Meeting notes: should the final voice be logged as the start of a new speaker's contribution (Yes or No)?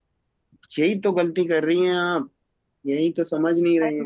No